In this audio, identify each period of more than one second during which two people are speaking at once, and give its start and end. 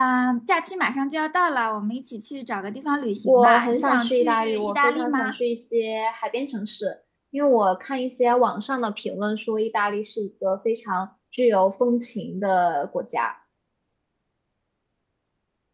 3.2-5.3

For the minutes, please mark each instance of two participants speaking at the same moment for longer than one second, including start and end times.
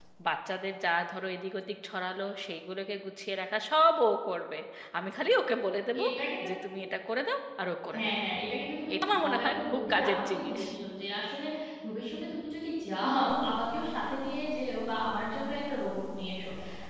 8.9-10.6

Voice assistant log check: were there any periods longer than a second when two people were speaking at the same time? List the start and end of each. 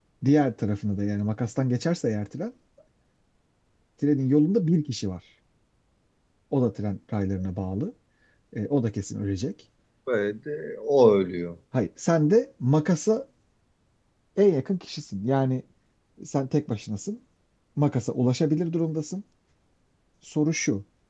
none

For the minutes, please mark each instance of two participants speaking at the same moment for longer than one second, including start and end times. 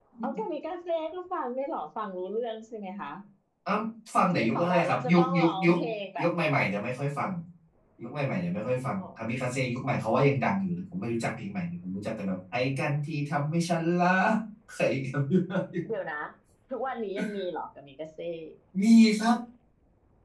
4.4-5.8

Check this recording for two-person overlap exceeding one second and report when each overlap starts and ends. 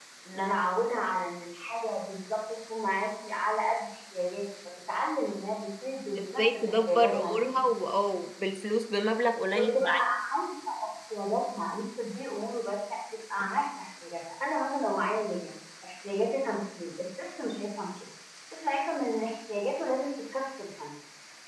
6.2-7.6

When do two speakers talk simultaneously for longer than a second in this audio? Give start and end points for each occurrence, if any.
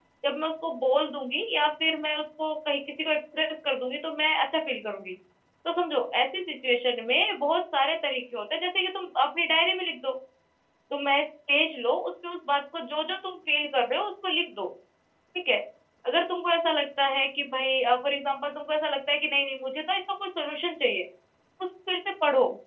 none

